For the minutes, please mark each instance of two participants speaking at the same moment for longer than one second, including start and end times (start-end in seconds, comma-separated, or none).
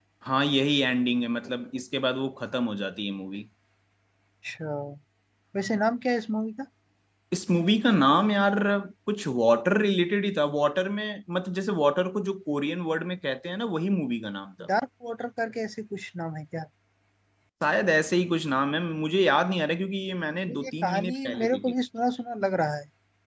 20.5-21.7